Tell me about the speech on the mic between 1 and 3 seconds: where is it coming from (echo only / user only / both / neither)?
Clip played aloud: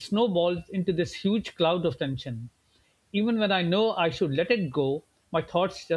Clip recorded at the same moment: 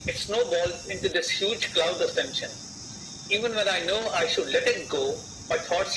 echo only